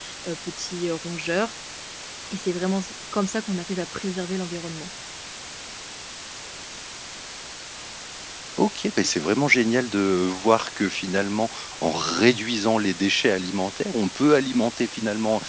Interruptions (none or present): none